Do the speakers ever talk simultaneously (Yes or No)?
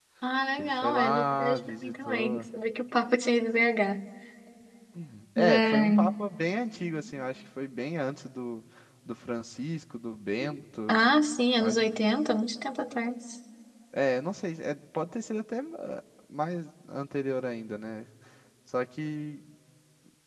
Yes